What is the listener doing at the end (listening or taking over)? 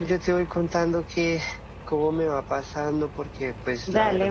taking over